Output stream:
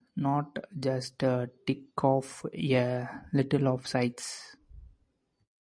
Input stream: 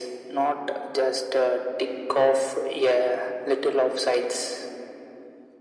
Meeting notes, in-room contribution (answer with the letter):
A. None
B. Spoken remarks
A